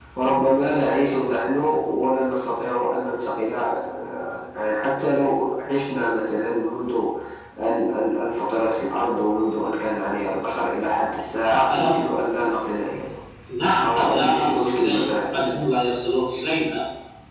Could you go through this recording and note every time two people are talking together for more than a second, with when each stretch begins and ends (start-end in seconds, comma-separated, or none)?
13.8-15.2